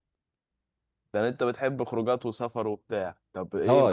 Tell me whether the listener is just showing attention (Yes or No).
No